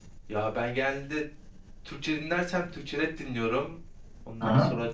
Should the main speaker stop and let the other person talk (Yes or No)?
No